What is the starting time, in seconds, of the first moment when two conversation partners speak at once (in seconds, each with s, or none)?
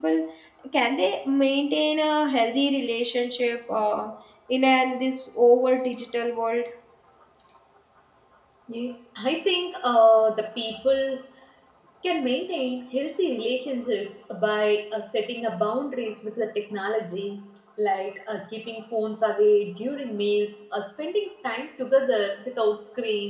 none